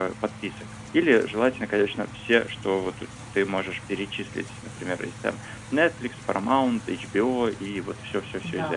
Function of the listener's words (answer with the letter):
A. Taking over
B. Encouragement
B